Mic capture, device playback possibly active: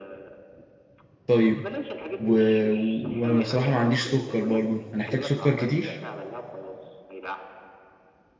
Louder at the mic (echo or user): user